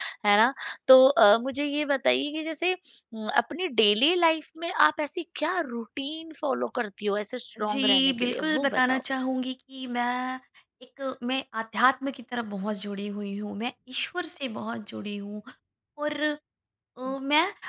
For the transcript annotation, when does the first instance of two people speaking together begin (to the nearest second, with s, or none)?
8 s